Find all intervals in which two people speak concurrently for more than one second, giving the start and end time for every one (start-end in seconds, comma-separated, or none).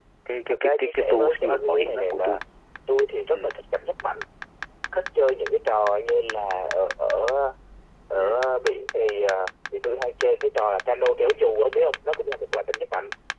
0.5-2.4